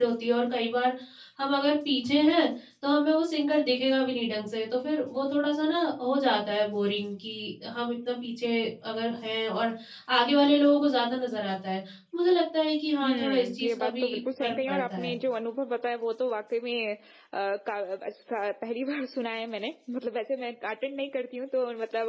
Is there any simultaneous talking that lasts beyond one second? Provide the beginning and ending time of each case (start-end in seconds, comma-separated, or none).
13.0-15.1